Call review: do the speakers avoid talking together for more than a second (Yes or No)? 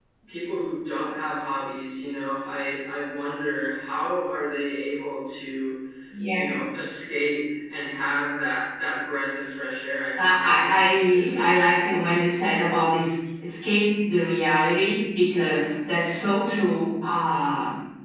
No